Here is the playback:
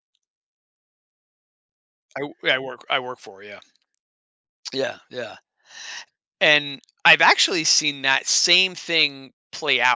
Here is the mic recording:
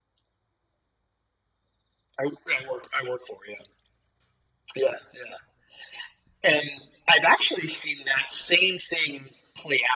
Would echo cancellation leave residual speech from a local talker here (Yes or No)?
No